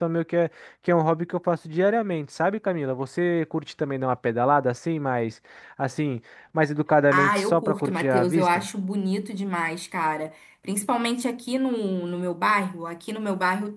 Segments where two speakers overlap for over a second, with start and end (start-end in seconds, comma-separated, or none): 7.1-8.7